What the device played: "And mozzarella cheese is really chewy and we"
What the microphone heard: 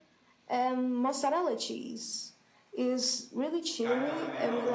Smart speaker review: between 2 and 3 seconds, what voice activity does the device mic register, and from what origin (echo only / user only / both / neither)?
echo only